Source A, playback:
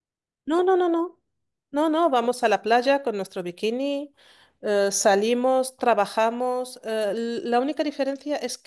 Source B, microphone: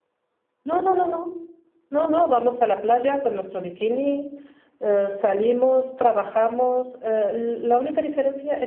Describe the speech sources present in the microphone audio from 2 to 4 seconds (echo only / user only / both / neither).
echo only